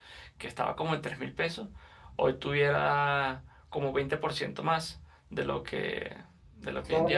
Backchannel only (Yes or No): No